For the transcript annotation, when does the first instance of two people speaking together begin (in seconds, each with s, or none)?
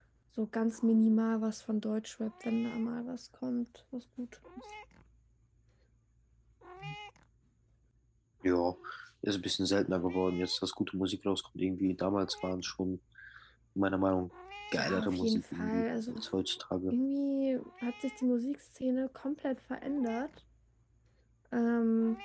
14.8 s